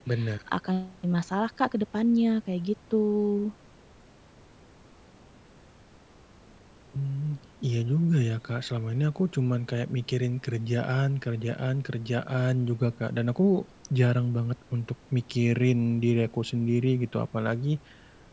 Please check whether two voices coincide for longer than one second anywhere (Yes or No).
No